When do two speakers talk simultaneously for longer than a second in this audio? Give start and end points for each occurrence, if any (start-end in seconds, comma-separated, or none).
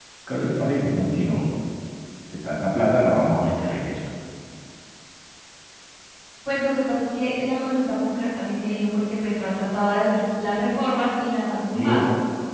none